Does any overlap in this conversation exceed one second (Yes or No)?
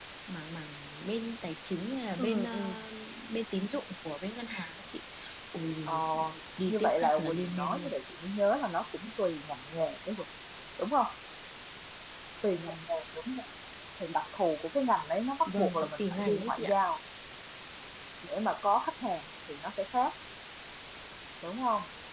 Yes